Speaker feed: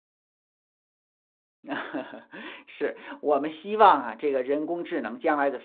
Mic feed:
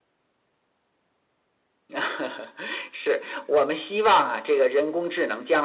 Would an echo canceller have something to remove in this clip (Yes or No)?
Yes